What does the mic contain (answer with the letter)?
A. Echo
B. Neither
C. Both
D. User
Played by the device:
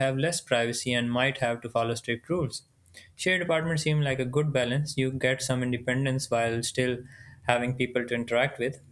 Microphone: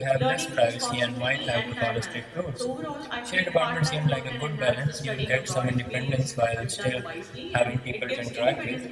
C